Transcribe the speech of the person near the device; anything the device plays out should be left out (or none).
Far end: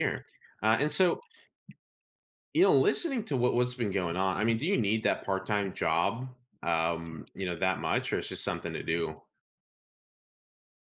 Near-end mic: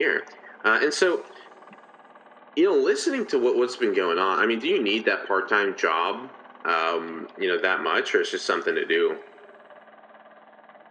none